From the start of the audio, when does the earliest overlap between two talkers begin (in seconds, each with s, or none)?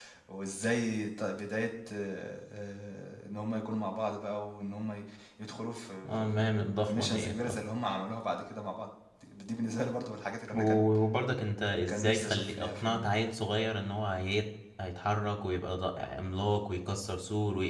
6.1 s